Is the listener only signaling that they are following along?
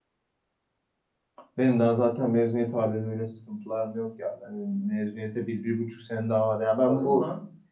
No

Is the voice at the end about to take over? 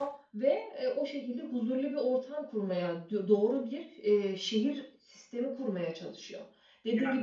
No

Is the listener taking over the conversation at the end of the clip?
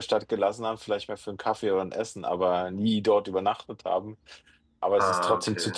No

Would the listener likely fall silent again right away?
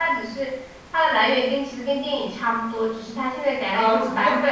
No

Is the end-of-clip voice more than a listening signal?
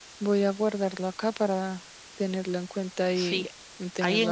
Yes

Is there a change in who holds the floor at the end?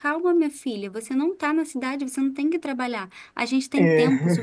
No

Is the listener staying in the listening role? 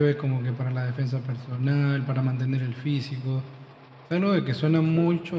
Yes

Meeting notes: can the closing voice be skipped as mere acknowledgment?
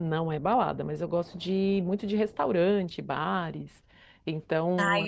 No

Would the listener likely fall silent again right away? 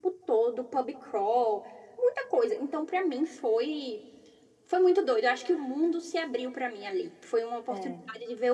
Yes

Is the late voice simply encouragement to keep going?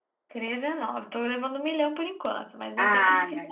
No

